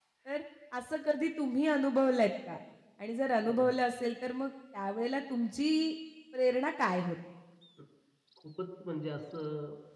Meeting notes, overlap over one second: none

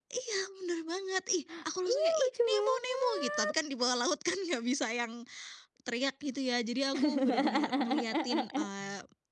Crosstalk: present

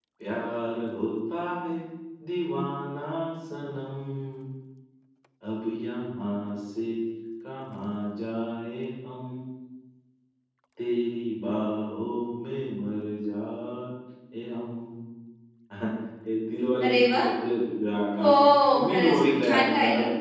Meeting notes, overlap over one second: present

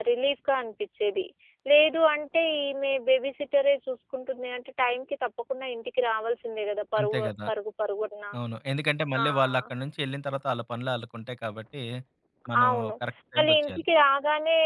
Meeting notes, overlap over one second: none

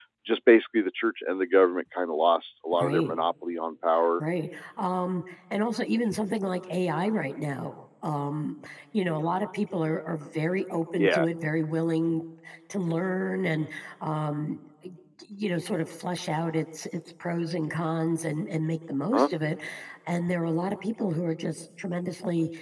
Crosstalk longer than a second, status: none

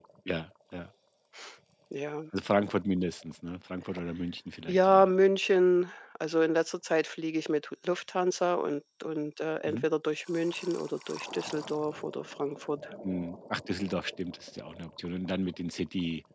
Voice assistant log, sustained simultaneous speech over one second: none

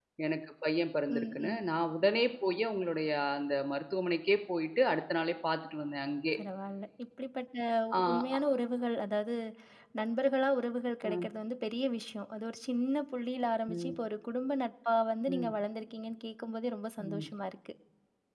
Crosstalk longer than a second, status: none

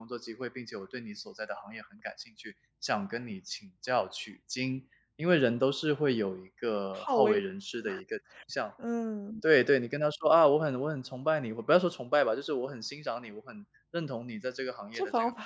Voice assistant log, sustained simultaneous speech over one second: none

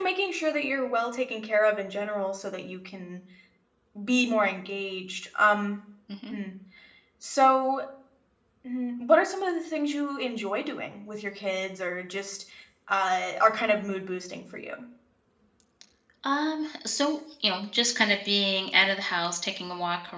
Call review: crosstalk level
none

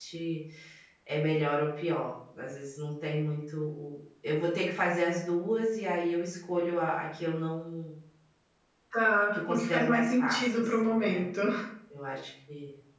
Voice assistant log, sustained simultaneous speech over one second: present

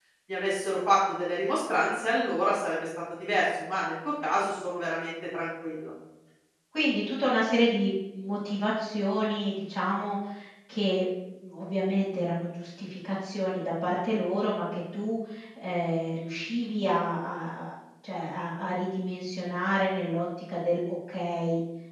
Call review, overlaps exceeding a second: none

